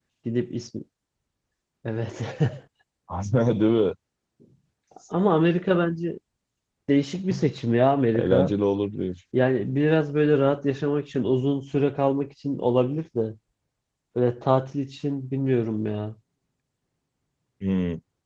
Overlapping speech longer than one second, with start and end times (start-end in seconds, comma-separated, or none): none